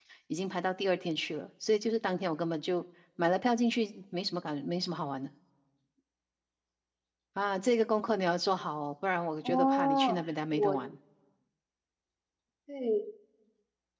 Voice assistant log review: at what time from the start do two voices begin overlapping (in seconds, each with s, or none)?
9.4 s